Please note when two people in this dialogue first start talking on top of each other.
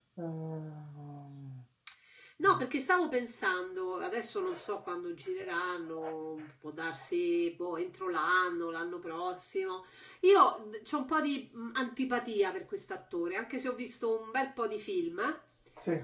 none

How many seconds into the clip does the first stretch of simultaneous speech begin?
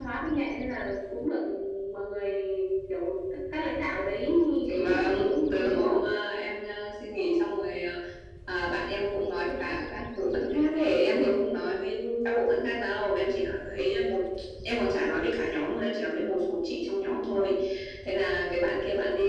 4.7 s

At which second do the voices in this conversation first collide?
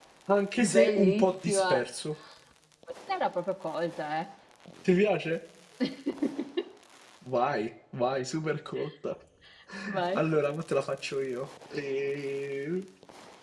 0.6 s

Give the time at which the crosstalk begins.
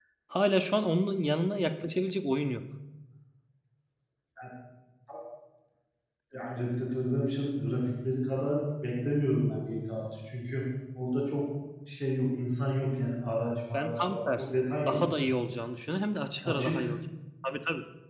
13.7 s

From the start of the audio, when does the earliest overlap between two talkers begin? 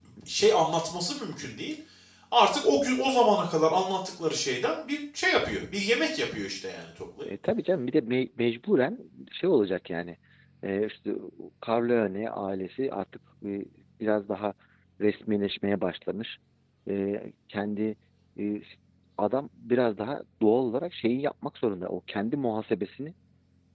none

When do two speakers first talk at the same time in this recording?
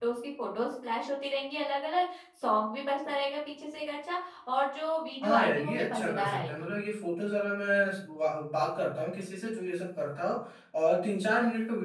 5.2 s

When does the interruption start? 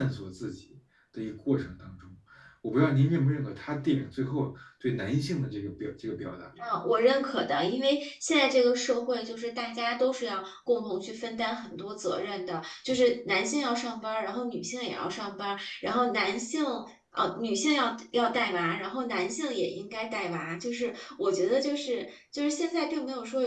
none

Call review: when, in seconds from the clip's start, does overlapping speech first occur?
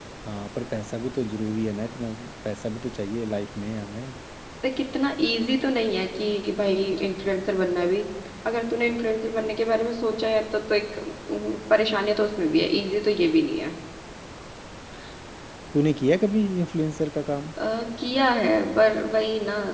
none

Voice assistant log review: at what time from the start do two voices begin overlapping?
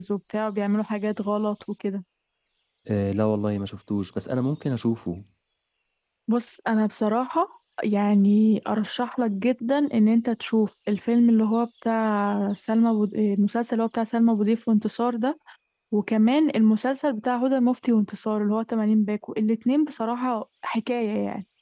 none

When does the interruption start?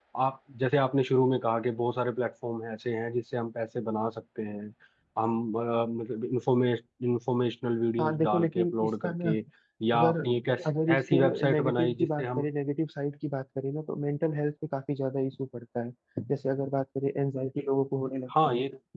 8.0 s

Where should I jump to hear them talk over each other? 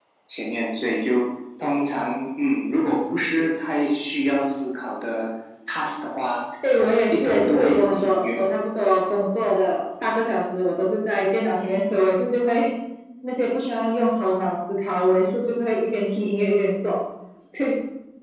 6.6 s

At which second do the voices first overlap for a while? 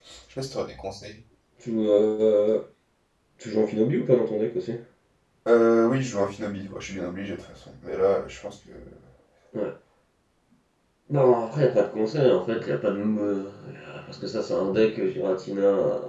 none

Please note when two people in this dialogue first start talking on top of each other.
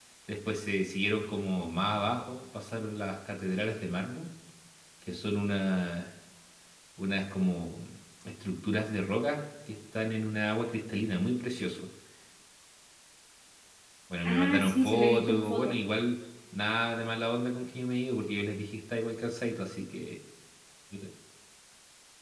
14.2 s

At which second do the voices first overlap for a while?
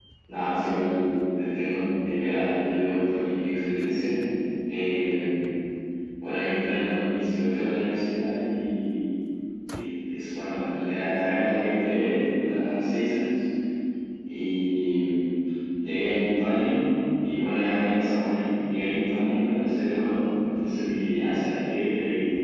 none

